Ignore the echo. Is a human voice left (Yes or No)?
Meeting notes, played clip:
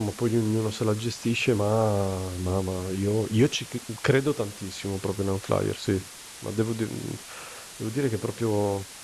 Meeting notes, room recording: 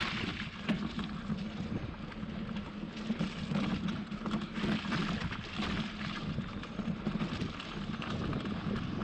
No